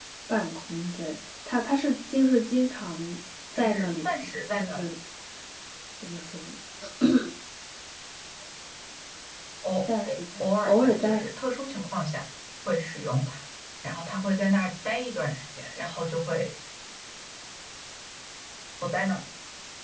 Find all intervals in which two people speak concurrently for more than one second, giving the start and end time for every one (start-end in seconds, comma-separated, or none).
3.5-4.8, 10.0-11.3